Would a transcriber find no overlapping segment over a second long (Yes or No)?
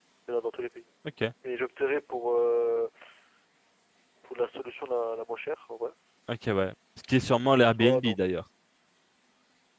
Yes